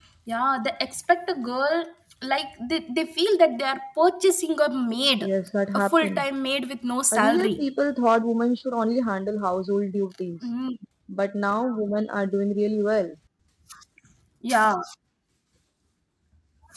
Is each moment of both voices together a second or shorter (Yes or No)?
Yes